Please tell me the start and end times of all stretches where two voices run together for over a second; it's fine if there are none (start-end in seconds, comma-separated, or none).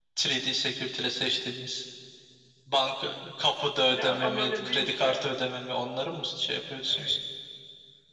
3.9-5.2